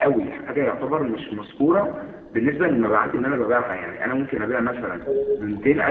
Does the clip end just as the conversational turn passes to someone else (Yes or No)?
No